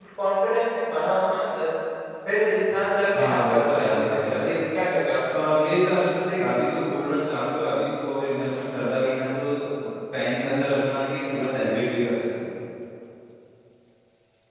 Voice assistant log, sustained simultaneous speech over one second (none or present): present